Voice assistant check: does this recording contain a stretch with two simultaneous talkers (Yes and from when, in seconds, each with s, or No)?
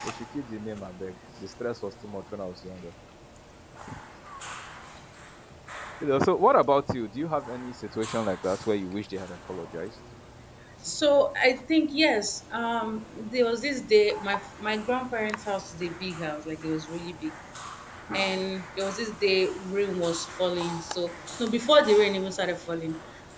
No